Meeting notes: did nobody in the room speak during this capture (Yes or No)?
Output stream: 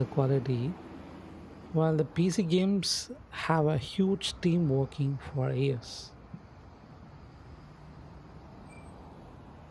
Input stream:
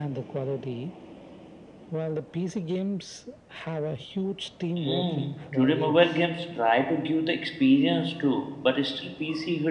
No